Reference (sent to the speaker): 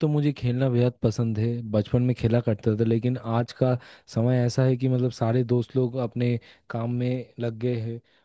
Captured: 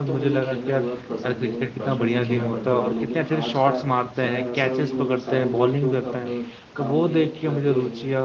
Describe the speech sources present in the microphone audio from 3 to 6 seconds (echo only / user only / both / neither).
both